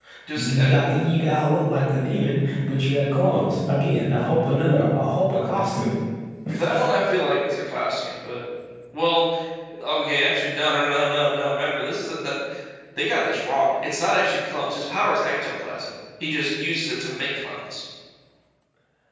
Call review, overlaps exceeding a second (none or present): none